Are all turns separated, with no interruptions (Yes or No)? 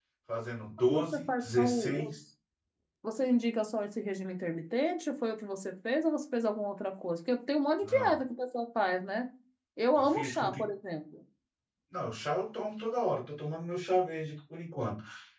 No